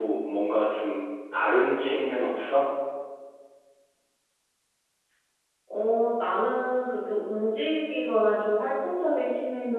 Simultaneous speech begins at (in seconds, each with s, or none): none